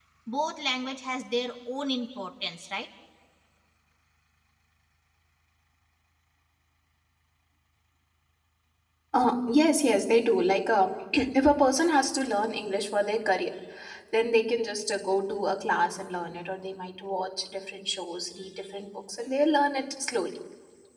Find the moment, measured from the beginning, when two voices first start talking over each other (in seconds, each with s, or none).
none